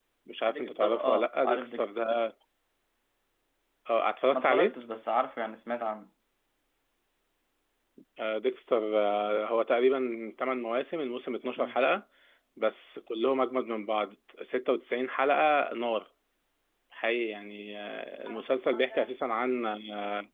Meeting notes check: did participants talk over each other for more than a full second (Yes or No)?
Yes